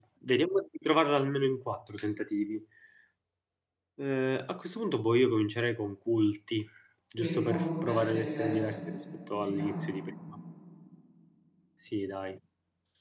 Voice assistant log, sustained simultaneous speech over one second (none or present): present